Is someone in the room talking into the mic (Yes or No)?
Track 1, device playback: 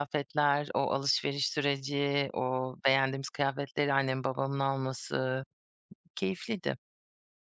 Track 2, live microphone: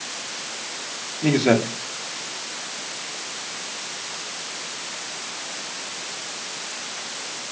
Yes